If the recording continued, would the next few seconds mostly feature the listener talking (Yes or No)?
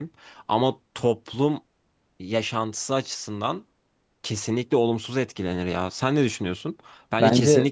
No